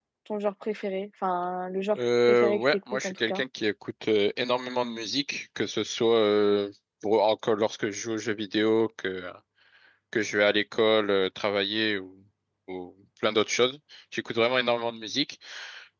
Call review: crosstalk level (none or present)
present